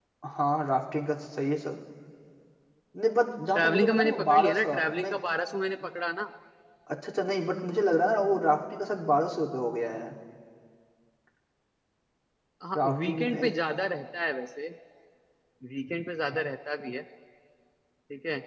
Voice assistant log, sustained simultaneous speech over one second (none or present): present